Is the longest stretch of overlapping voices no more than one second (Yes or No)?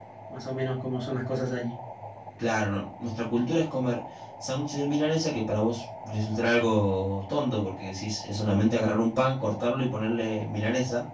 Yes